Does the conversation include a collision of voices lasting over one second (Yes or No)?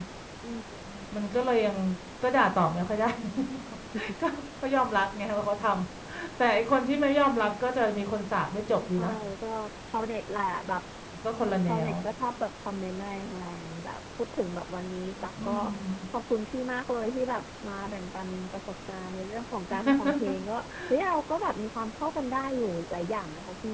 No